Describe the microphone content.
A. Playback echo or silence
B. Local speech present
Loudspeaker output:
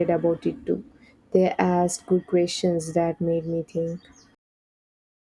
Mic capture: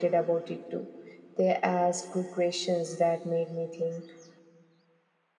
A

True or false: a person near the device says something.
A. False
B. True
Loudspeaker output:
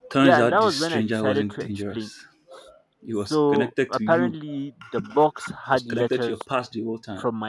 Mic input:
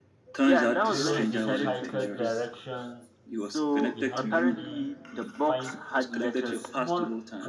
B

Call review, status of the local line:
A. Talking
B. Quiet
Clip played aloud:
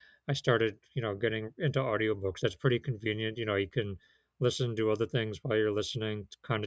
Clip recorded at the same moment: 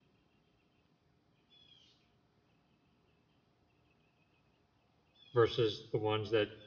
A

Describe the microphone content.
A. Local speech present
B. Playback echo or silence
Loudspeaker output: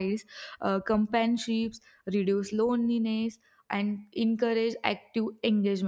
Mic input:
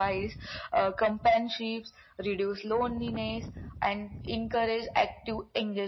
B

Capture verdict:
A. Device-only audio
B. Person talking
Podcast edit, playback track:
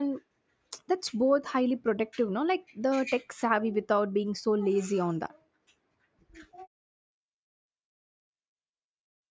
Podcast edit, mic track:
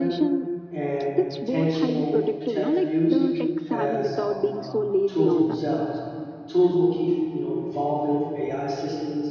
B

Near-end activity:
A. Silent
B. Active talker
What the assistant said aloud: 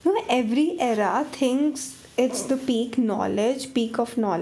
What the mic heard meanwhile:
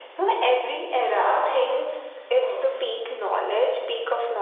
A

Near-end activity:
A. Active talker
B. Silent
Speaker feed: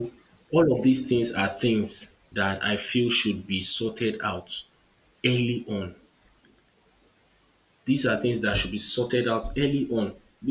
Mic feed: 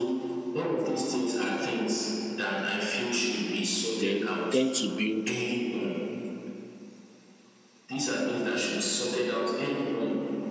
A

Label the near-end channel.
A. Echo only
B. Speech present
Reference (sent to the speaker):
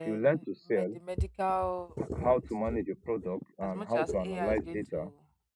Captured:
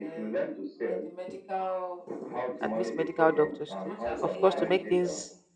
B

